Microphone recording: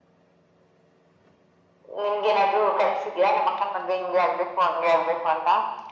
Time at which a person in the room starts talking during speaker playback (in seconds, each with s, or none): none